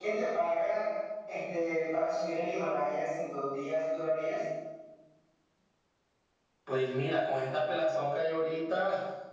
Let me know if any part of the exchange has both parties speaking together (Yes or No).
No